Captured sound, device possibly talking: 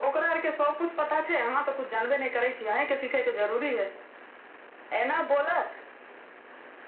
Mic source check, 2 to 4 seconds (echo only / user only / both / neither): echo only